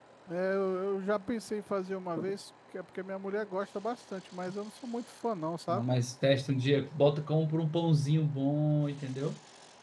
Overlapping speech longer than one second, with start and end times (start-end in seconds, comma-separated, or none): none